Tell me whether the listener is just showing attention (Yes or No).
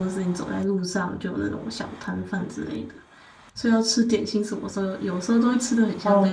No